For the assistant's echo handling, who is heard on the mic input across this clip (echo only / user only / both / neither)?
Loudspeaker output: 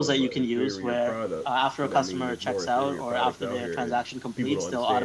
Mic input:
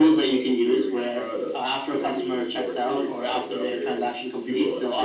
echo only